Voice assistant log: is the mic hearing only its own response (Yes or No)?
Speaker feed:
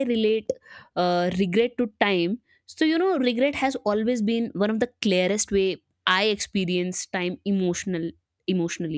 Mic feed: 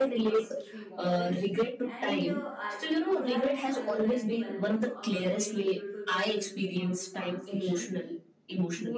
No